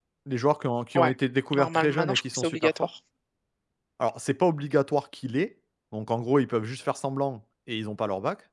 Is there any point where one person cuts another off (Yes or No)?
Yes